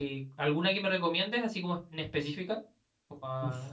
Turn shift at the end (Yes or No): Yes